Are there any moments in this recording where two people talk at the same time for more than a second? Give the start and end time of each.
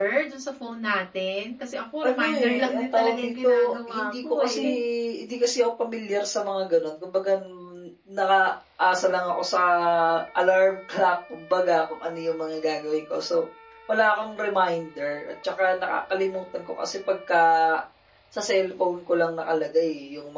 2.0-4.6

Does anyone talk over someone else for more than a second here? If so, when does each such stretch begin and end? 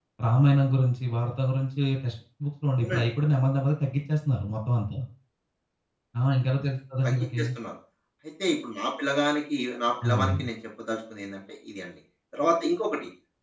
none

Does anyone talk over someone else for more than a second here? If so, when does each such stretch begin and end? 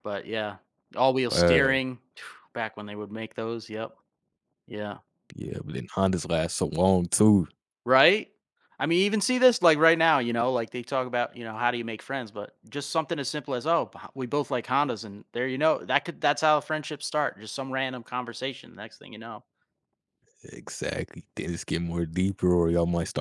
none

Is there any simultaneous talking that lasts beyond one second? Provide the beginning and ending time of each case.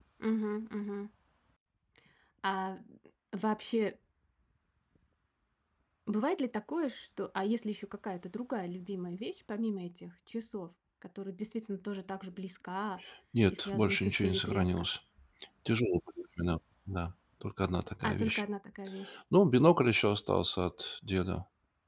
13.5-14.9

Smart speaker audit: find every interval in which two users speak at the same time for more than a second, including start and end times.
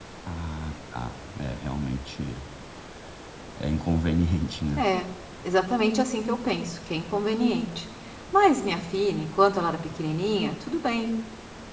none

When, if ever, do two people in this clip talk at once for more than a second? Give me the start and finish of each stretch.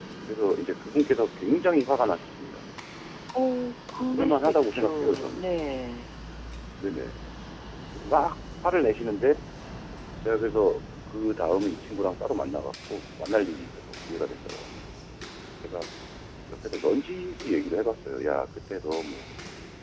4.1-5.4

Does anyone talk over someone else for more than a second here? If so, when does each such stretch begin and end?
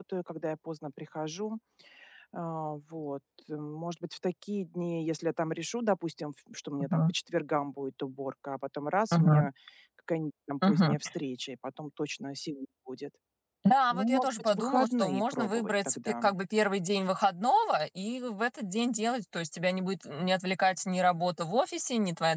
13.9-16.1

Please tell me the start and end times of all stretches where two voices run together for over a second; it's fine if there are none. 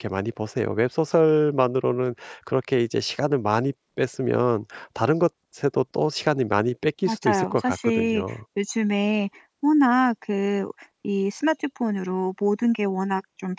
7.1-8.3

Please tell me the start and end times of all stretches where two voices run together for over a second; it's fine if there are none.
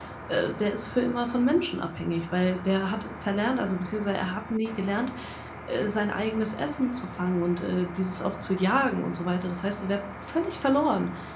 none

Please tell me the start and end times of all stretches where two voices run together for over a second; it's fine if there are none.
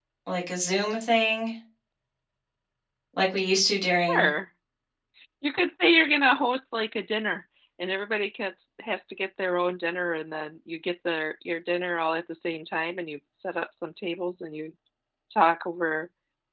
none

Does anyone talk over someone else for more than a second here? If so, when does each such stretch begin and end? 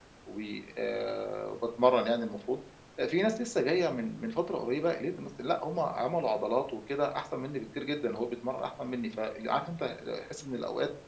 none

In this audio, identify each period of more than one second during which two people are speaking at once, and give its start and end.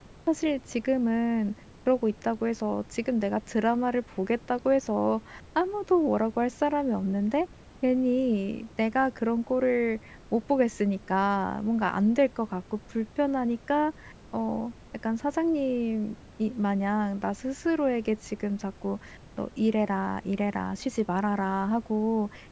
none

